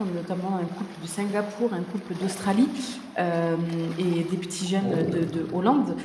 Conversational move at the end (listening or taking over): listening